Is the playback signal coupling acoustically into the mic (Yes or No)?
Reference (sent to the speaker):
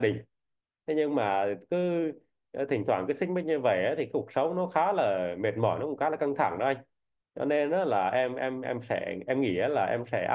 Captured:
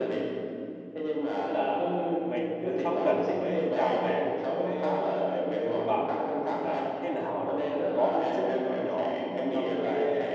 Yes